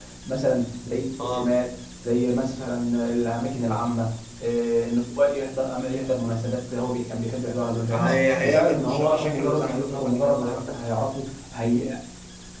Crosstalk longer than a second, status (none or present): present